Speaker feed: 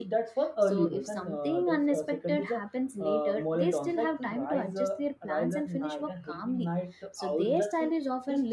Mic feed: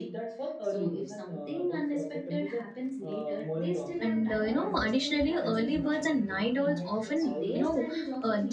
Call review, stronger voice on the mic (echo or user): user